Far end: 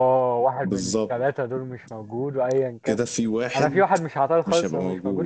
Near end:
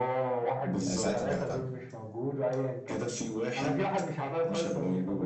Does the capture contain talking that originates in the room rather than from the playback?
Yes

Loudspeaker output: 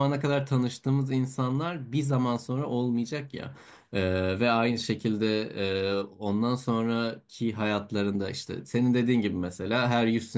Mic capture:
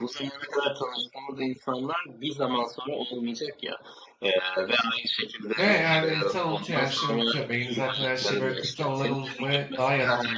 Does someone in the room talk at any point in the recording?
Yes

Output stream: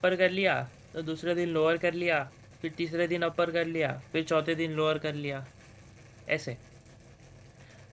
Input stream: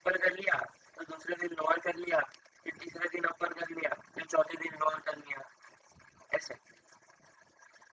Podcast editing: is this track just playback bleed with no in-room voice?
Yes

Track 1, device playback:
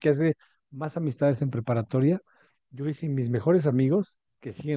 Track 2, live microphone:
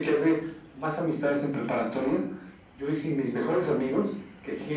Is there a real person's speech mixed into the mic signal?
No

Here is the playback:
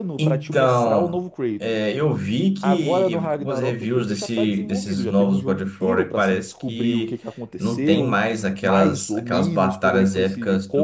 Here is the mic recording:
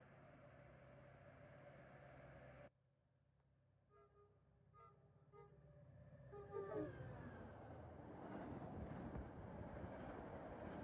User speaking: No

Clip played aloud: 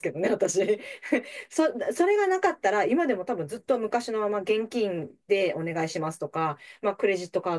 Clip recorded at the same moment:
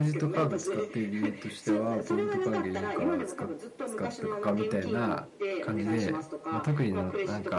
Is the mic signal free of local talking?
No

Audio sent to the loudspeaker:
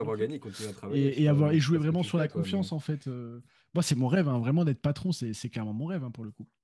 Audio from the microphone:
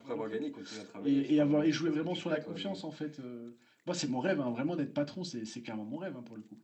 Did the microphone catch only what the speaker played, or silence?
Yes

